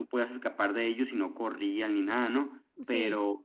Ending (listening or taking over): listening